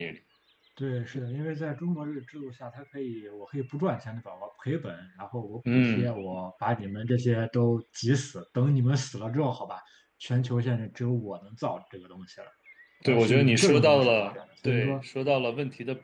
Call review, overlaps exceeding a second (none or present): present